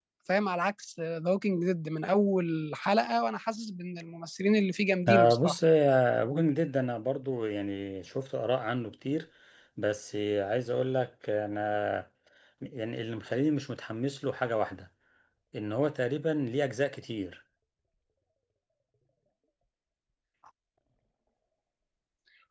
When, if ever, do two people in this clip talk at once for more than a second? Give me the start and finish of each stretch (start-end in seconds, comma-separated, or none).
none